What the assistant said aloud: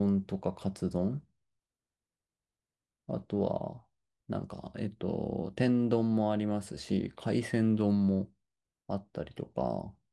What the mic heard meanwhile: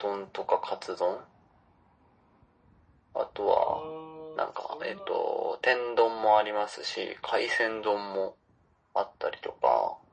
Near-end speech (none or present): present